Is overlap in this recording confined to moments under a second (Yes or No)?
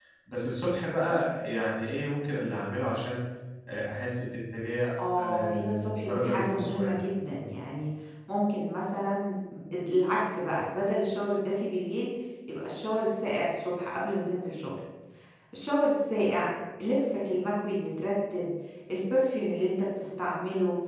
No